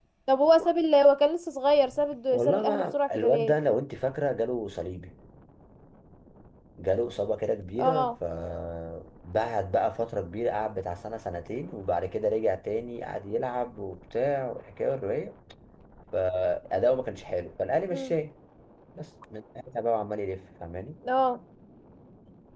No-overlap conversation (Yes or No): No